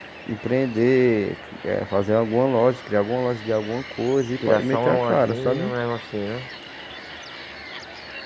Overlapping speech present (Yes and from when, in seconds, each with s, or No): Yes, from 4.4 s